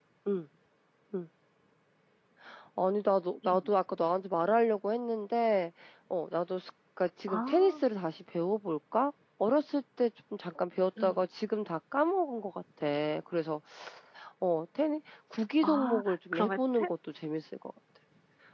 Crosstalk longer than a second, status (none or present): present